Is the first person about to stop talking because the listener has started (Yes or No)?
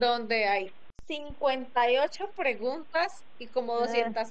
No